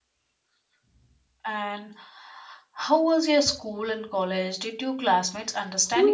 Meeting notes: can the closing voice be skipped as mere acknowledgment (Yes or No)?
No